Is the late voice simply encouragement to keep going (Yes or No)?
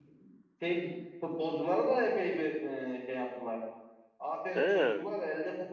Yes